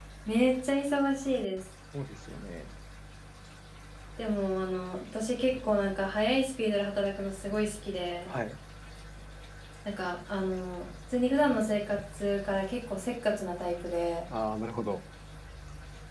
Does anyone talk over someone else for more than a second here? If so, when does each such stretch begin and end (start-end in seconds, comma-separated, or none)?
none